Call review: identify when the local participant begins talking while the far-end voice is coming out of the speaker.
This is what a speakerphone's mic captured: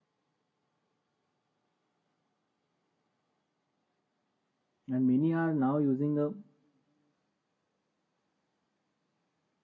5 s

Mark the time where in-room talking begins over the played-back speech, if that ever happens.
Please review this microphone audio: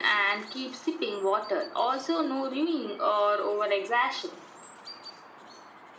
none

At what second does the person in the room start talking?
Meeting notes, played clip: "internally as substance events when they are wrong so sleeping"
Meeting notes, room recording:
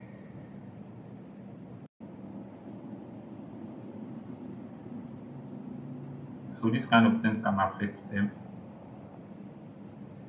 7 s

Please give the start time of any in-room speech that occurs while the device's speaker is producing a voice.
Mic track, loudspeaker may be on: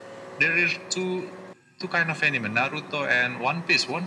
none

